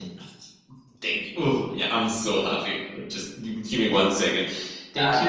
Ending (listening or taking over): taking over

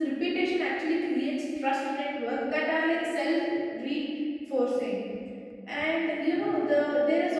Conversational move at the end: listening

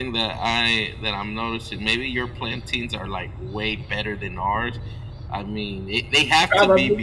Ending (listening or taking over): listening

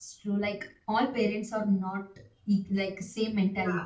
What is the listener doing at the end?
listening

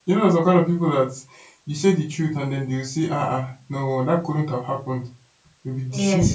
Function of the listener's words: taking over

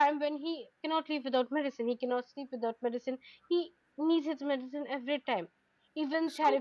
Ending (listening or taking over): listening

